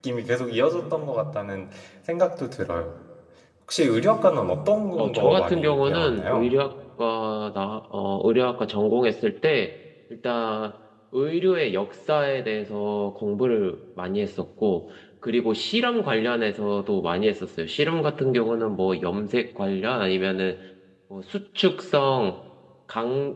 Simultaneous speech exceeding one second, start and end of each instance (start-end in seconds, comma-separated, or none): 5.0-6.5